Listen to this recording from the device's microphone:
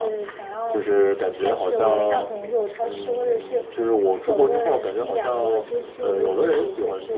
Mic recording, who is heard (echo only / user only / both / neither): echo only